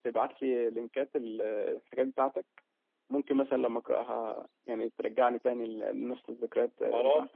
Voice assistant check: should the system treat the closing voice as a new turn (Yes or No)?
Yes